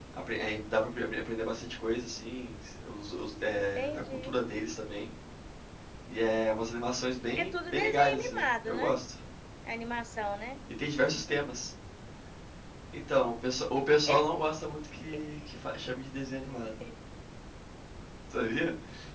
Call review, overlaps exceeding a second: present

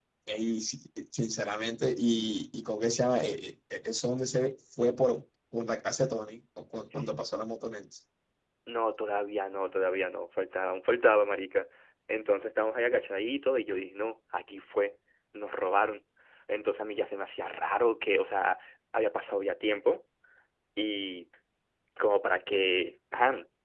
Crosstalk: none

